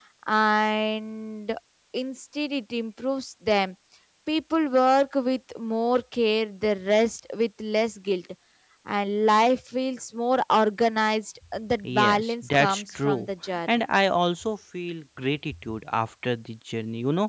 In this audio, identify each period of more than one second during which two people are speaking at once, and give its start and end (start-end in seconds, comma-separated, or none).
11.8-13.3